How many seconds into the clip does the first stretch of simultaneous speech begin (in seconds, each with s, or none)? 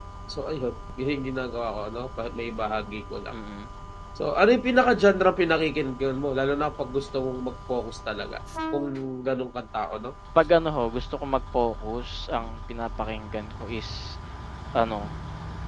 none